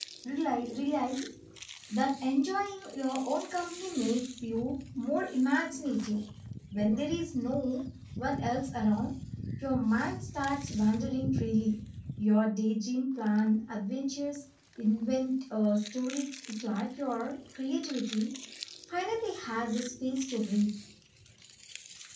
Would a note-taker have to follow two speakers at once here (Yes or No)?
No